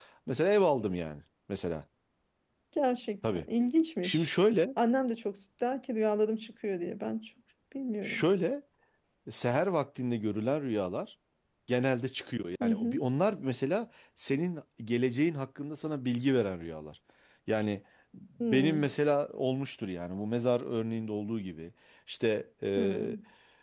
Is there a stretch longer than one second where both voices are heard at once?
No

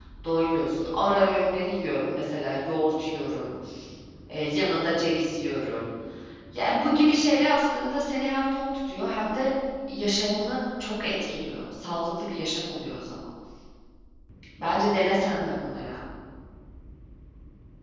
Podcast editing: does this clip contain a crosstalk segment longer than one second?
No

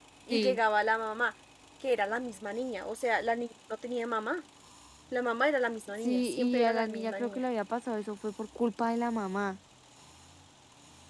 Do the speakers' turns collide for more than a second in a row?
Yes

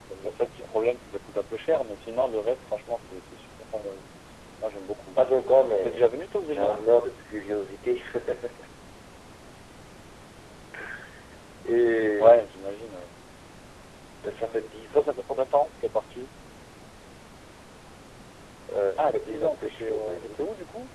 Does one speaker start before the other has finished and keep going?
Yes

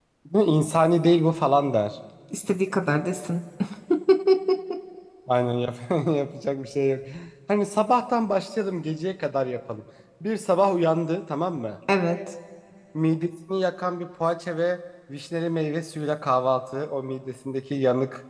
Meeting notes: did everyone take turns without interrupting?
Yes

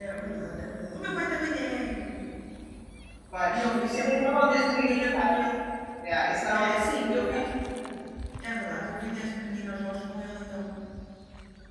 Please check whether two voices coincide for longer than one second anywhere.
Yes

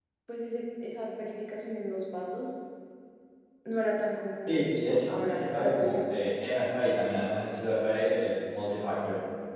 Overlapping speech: Yes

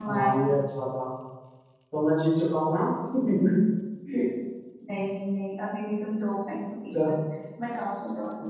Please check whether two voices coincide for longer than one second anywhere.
No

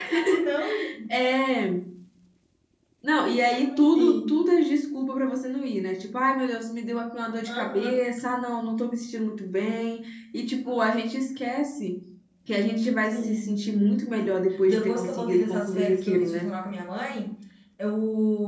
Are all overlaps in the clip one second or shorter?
No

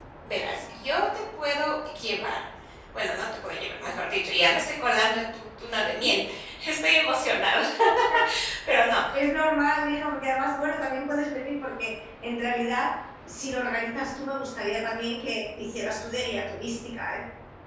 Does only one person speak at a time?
Yes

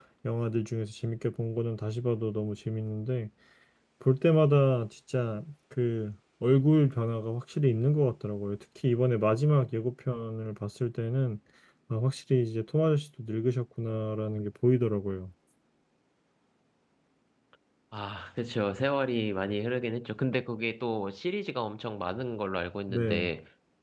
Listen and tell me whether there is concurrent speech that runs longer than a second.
No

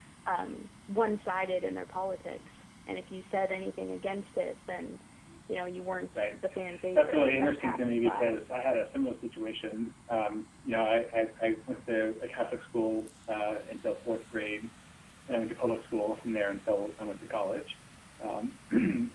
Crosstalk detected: Yes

